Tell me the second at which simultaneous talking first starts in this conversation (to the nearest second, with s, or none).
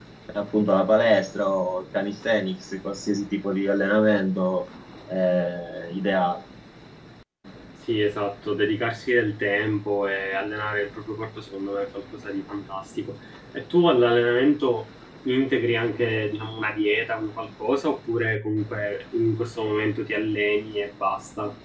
none